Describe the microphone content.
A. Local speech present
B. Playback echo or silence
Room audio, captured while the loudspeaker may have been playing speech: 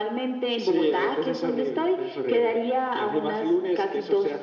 B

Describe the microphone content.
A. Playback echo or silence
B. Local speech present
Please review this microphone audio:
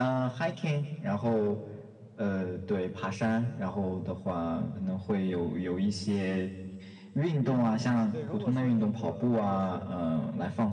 B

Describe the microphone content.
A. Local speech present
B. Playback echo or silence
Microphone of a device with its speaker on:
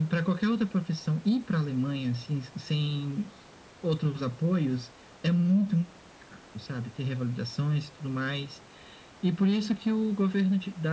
B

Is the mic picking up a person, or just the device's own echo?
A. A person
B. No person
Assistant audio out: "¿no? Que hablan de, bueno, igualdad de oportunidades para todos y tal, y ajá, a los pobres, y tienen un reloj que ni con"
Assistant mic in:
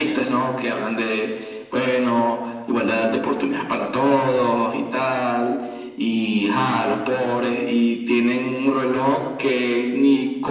B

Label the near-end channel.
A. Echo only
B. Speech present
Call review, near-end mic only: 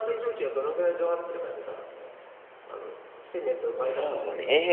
B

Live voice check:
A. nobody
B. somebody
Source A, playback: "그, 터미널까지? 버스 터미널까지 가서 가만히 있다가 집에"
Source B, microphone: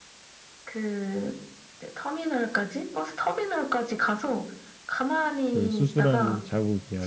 B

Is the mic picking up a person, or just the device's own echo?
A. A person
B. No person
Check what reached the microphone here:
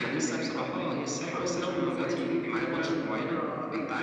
B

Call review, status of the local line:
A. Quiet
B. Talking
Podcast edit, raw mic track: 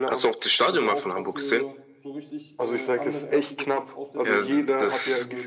B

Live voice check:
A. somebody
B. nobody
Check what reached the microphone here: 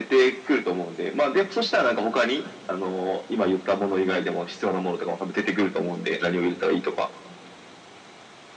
B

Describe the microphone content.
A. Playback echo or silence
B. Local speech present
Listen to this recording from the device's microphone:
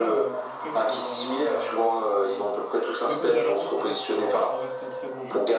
B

